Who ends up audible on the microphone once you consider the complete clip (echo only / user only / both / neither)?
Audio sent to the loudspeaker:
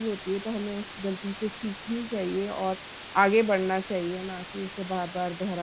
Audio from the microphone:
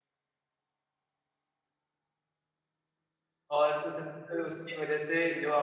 user only